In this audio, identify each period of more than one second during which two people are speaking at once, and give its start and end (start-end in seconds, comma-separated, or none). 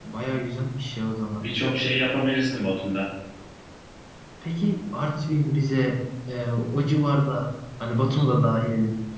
none